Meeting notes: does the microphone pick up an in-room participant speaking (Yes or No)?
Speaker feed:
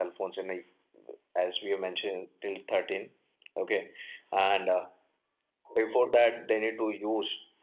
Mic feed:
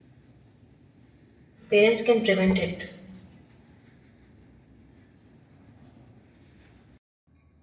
Yes